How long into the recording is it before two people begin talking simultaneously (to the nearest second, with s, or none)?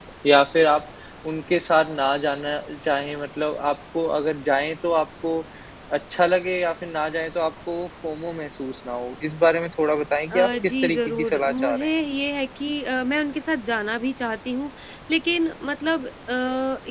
10 s